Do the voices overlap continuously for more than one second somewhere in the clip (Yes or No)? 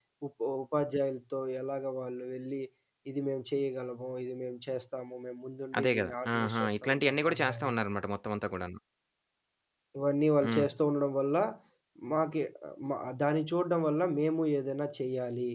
Yes